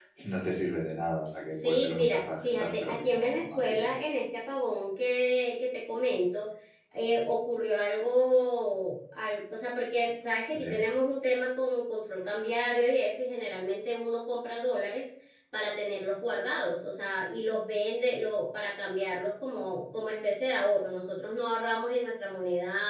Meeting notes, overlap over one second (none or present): present